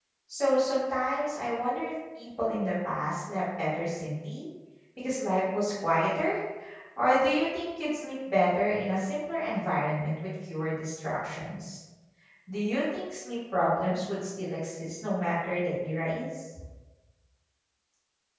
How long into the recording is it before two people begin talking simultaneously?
none

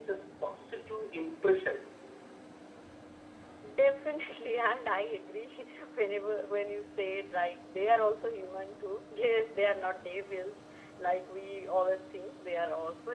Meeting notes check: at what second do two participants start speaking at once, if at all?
none

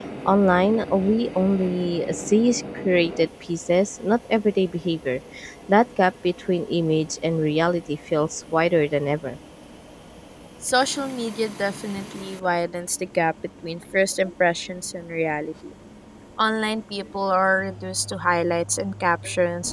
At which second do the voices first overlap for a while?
none

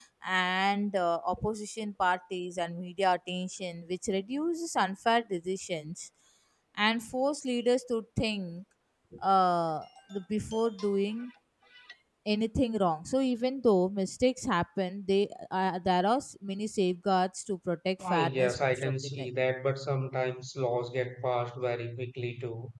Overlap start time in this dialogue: 18.0 s

